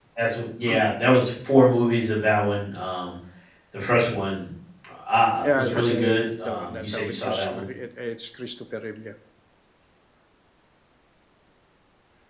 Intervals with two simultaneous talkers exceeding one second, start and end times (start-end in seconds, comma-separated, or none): 5.4-7.6